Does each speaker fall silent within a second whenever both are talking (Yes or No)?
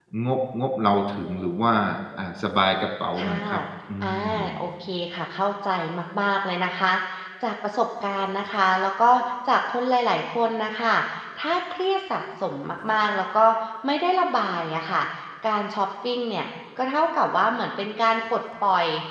Yes